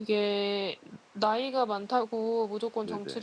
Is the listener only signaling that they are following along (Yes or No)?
Yes